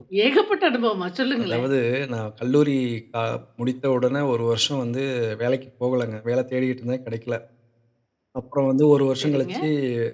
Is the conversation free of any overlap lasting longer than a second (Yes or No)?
Yes